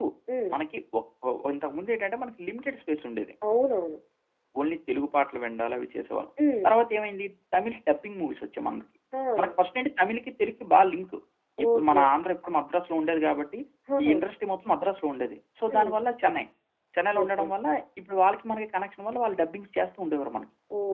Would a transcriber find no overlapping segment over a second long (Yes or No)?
Yes